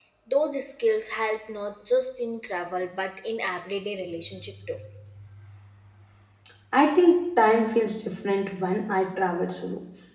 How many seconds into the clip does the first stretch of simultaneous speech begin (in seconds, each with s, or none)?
none